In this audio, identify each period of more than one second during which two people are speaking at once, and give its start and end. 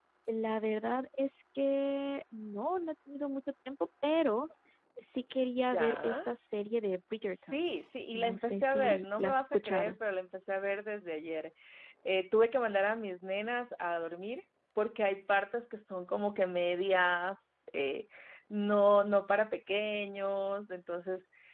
8.1-10.0

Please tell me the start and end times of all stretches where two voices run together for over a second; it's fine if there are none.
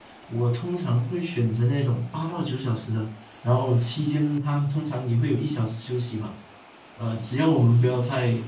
none

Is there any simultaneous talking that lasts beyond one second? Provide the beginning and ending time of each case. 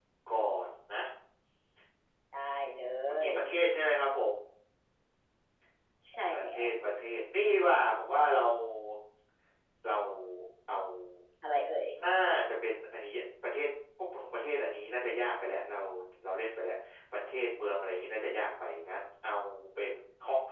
none

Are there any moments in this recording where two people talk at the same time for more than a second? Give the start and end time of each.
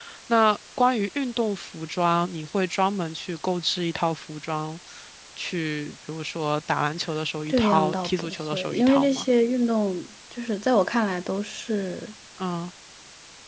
7.5-9.2

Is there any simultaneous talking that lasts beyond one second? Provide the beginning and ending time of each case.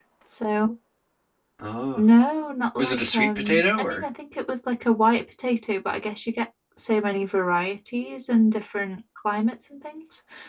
2.8-4.0

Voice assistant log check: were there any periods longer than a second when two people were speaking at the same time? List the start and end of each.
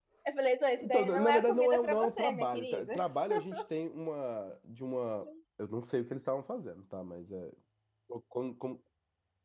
0.8-2.9

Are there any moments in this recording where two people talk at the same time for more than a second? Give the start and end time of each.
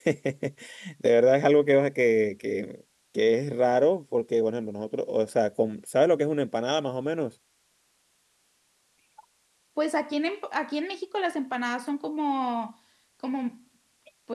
none

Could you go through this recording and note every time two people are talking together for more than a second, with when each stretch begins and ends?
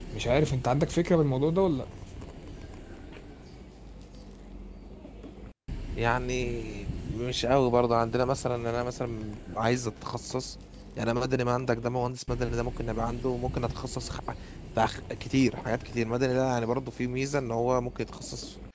none

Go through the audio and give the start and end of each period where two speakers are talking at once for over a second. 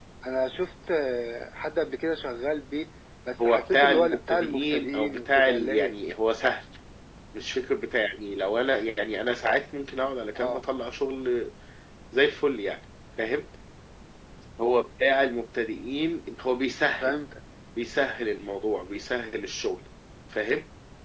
3.4-6.0

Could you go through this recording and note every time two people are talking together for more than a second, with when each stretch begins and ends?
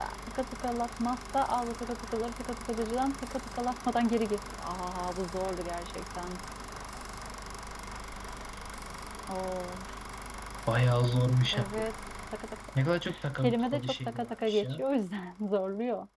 12.8-14.8

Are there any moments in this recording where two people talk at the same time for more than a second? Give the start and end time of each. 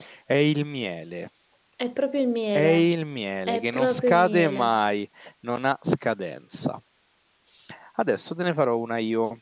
3.5-4.8

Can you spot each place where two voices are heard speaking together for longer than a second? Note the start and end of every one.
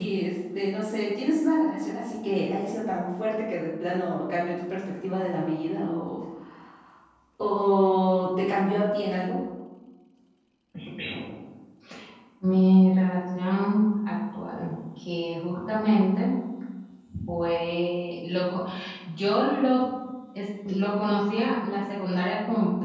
none

